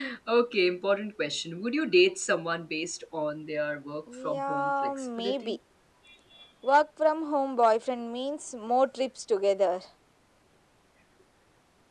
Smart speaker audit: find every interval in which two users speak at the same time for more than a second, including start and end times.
4.2-5.6

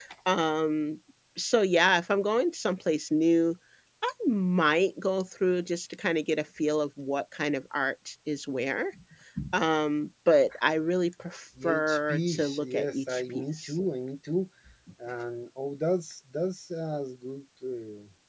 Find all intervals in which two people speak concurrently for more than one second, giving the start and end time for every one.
11.6-13.7

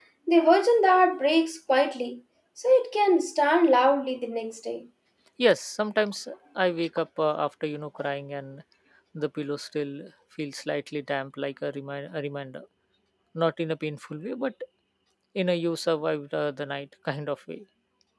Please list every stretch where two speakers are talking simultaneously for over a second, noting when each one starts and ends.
none

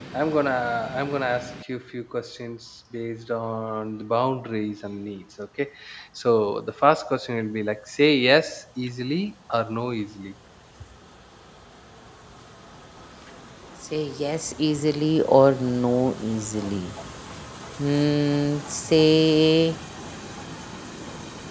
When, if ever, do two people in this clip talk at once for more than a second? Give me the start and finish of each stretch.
none

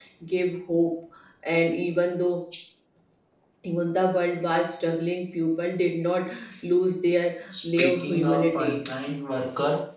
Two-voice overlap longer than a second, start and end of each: 7.5-8.8

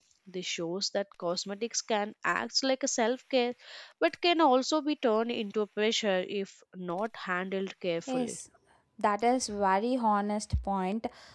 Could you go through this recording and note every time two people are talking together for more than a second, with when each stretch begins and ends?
none

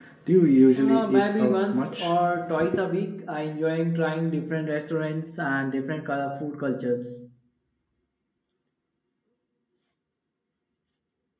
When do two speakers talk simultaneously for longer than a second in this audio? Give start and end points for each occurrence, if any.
0.8-2.1

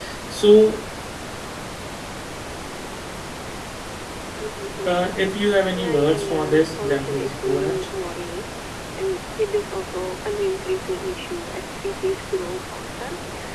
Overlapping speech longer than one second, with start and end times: 5.7-7.9

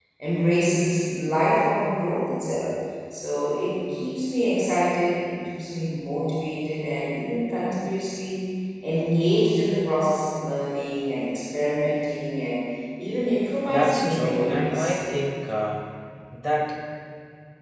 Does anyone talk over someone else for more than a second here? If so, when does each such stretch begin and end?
13.7-14.9

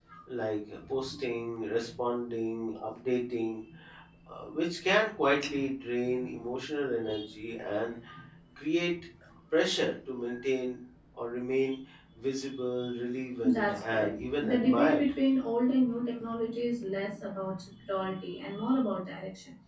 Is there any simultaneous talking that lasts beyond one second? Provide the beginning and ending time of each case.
13.4-15.1

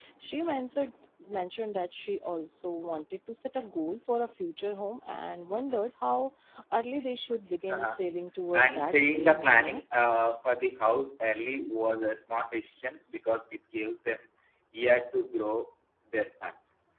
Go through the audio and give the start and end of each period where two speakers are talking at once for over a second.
8.5-9.8

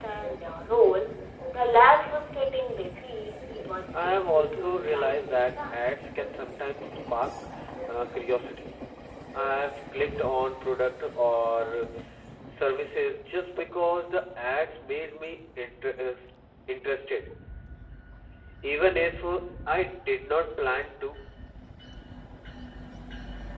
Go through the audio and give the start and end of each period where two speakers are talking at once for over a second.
4.0-5.8

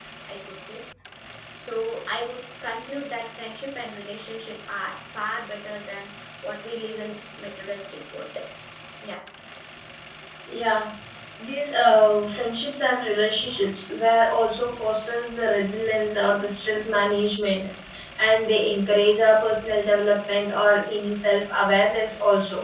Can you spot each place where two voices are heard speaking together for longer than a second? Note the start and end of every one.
none

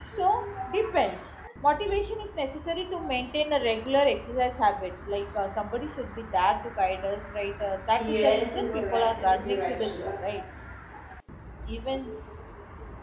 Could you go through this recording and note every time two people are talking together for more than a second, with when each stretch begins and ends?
8.0-10.2

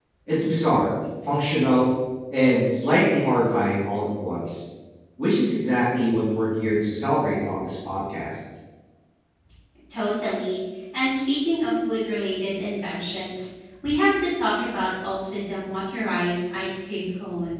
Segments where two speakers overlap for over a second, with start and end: none

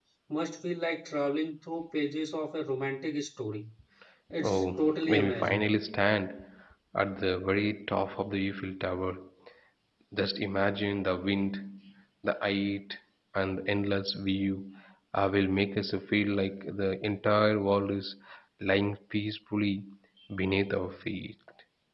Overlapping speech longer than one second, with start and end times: 4.4-5.7

